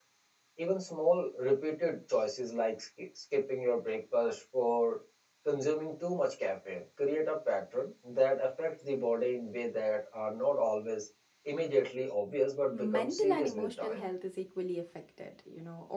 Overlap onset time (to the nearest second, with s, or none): 13 s